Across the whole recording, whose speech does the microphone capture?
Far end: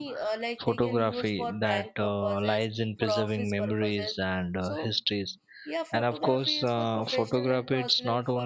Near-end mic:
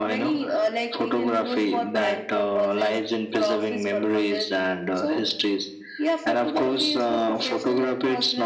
echo only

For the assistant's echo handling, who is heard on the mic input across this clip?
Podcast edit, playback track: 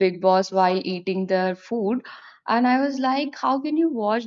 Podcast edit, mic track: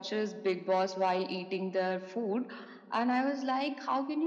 echo only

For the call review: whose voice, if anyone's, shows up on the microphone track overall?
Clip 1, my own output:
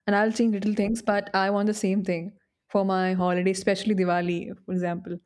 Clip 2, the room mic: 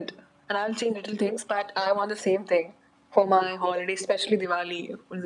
echo only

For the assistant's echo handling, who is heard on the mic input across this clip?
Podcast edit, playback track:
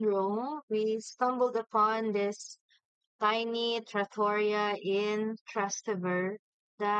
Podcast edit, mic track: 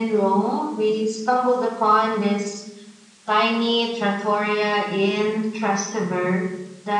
echo only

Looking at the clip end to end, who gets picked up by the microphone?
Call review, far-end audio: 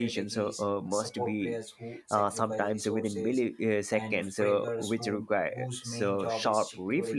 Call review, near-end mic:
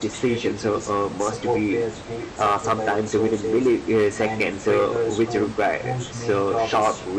echo only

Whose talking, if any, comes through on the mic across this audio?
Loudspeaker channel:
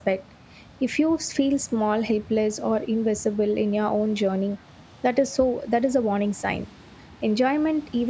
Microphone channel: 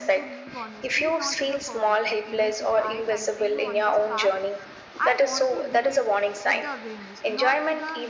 both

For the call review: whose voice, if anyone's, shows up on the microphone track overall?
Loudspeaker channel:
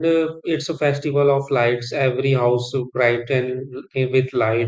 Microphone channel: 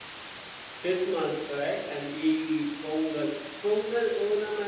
user only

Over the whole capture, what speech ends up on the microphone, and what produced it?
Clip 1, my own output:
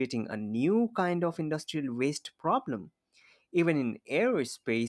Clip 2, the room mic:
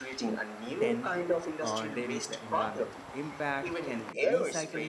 both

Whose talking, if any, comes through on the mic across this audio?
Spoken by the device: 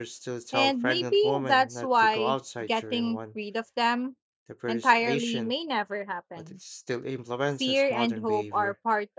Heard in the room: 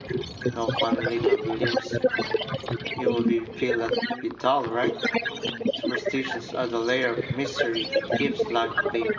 both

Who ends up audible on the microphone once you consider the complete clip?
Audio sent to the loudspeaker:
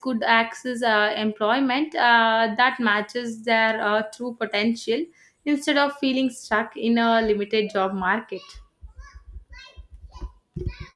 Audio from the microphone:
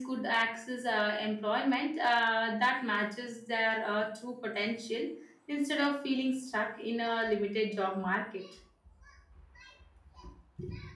echo only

